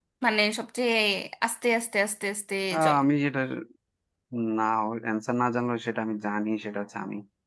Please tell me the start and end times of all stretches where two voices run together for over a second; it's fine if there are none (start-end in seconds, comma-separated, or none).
none